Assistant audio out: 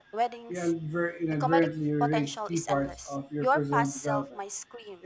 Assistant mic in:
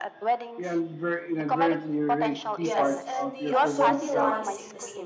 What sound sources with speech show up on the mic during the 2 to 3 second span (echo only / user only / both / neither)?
both